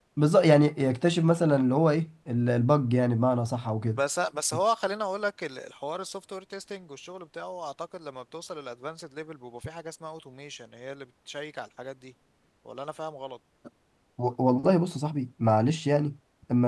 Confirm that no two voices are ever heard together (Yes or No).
Yes